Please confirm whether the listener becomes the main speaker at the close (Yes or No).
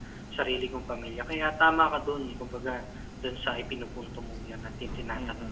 Yes